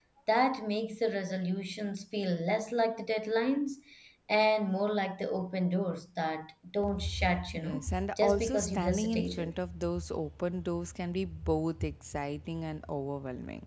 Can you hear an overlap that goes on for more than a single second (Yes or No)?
Yes